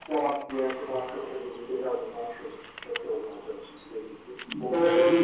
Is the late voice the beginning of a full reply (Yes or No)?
Yes